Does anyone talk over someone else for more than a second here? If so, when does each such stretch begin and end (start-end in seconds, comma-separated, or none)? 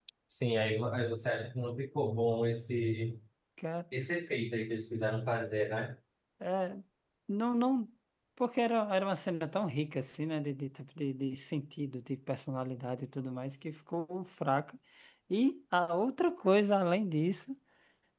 none